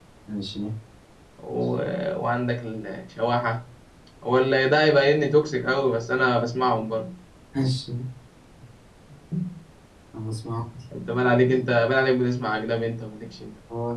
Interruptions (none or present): none